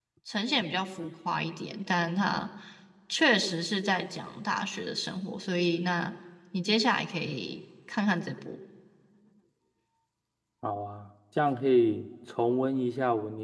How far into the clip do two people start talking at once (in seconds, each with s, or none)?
none